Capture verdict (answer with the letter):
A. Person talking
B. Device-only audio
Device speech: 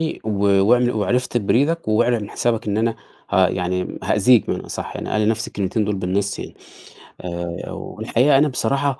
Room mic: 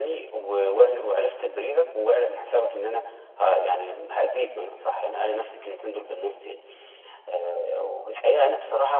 B